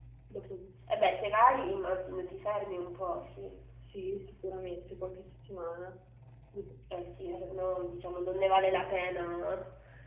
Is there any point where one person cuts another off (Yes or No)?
No